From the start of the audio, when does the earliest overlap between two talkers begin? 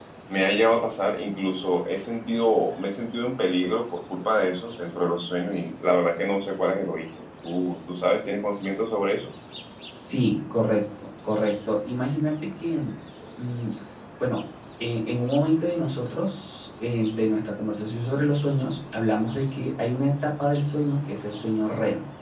none

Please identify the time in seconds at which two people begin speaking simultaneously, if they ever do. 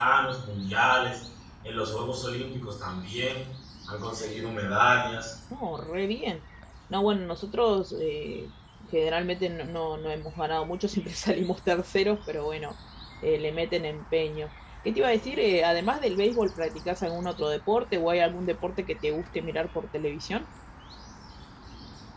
none

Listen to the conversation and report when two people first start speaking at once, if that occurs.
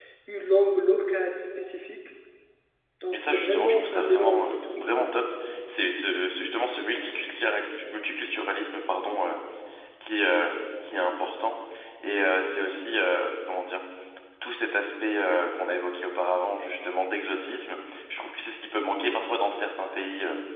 3 s

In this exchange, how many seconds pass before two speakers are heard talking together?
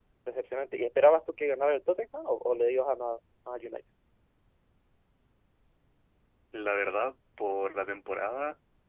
none

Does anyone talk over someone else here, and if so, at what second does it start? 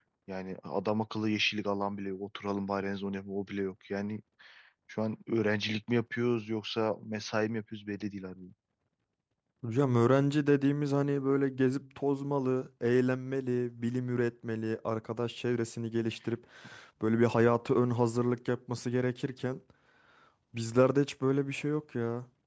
none

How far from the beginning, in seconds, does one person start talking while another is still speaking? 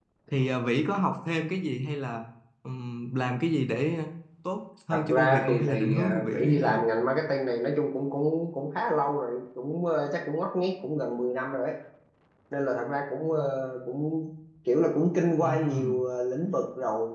5 s

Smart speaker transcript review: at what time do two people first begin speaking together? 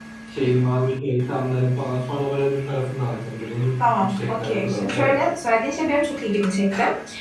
4 s

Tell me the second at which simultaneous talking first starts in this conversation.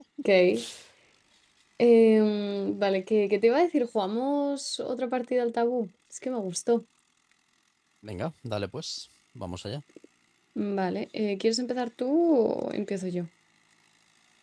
none

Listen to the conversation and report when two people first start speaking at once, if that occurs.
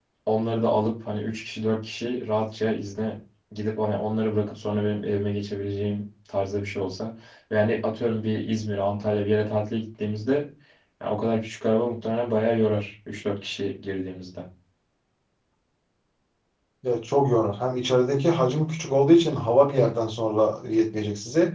none

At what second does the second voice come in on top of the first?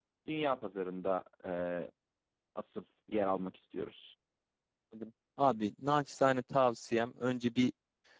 none

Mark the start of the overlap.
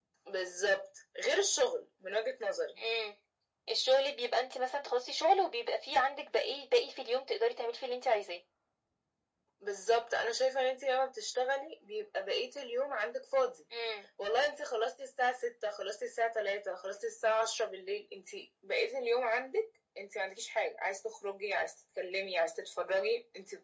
none

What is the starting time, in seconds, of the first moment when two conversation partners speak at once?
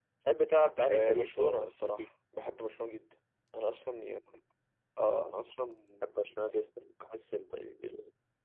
1 s

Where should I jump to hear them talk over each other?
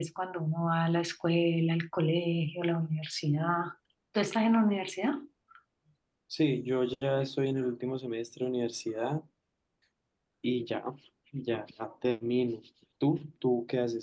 none

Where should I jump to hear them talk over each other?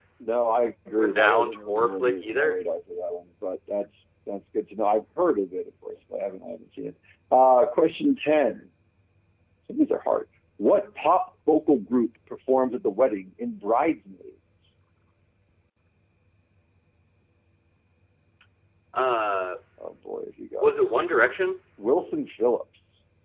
1 s

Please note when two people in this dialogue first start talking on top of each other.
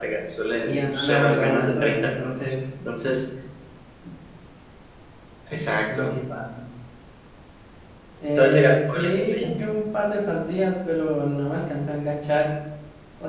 1 s

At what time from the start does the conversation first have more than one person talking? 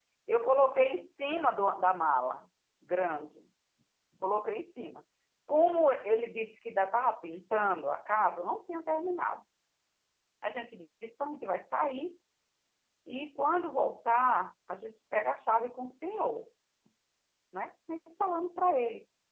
none

